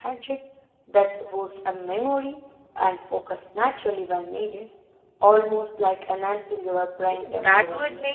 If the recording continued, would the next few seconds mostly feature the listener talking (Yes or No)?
Yes